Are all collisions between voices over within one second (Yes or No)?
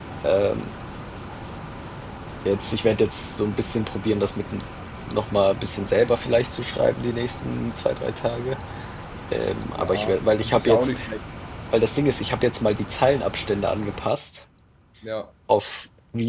No